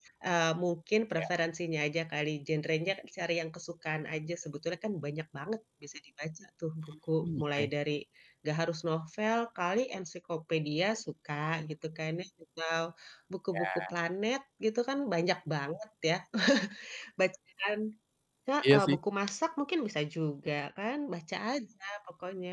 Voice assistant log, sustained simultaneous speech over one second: none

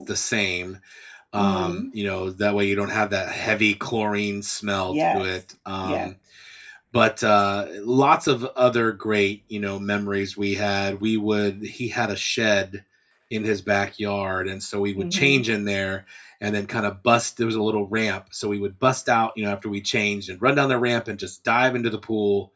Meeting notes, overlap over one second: none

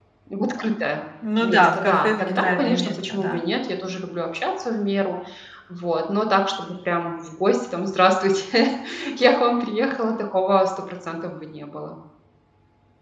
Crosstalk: present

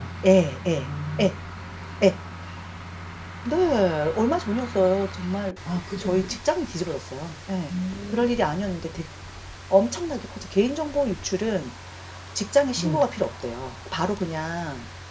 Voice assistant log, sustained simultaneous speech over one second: none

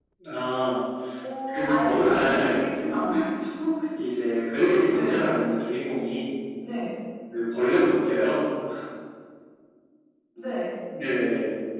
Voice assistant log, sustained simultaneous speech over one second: present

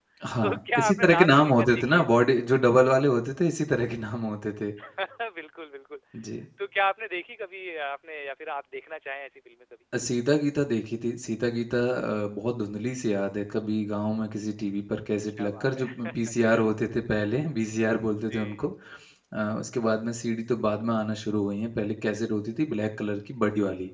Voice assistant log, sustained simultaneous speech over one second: present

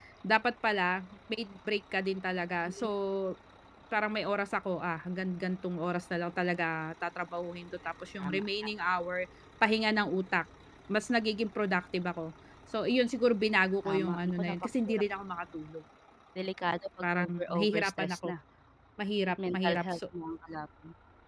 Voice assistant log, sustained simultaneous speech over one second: present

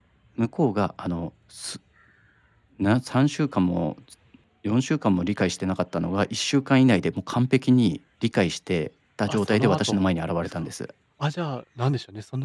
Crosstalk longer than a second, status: present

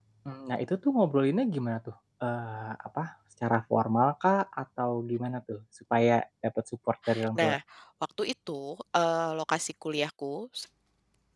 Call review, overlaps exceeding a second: none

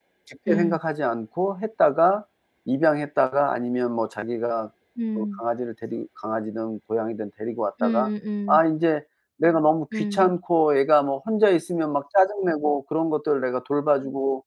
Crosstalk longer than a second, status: none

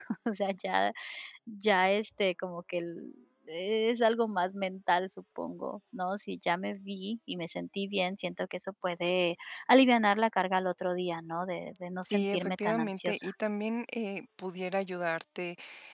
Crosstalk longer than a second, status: present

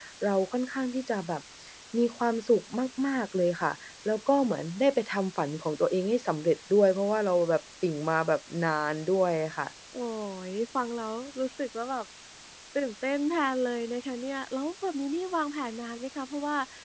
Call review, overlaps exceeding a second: none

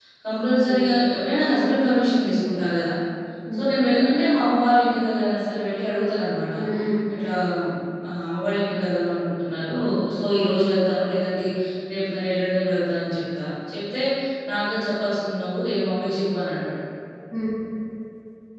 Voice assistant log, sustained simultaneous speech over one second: none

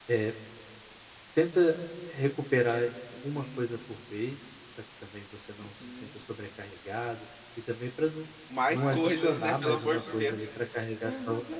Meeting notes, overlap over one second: present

